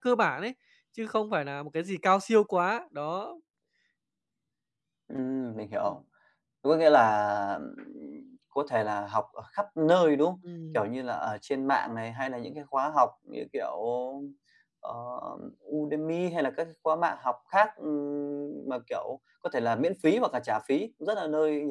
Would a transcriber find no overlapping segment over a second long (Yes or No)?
Yes